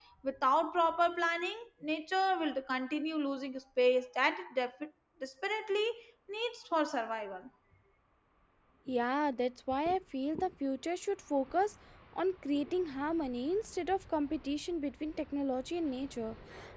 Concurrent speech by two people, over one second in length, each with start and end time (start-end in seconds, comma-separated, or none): none